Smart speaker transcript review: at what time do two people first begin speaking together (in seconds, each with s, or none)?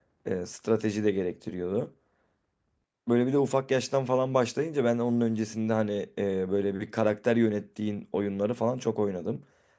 none